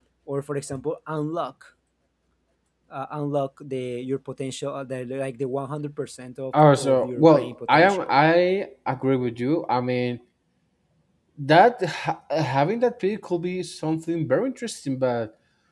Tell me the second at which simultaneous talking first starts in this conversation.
6.5 s

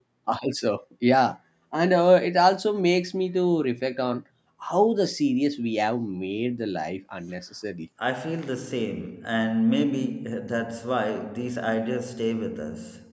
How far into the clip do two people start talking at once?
none

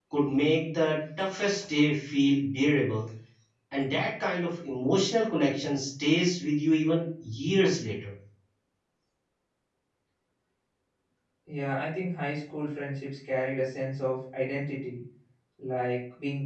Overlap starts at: none

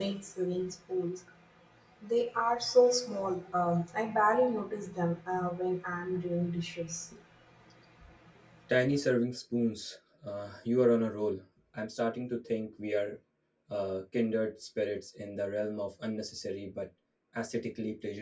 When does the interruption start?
none

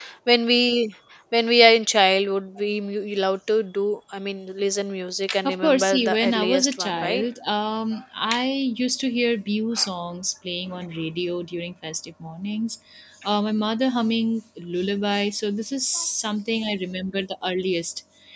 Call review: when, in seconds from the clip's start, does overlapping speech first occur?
5.4 s

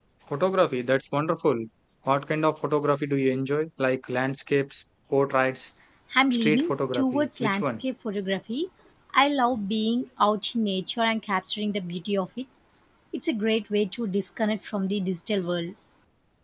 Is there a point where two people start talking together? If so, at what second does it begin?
6.3 s

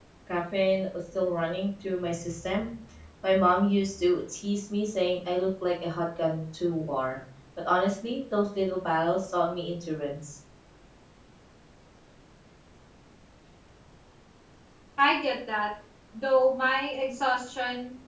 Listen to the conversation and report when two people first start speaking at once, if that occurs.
none

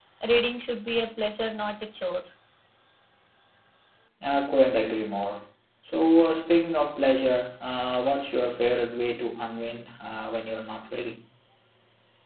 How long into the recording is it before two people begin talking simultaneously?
none

